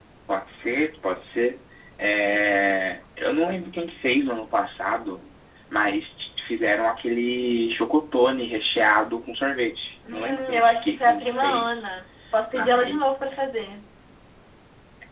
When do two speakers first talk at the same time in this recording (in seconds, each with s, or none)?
10.1 s